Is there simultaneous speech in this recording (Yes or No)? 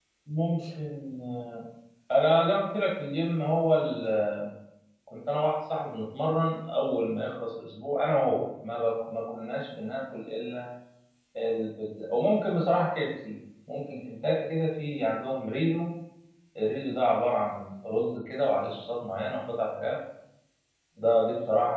No